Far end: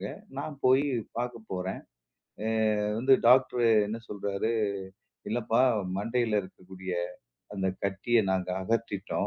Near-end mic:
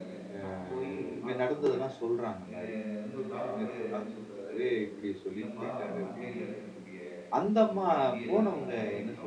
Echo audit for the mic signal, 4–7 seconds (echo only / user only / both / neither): both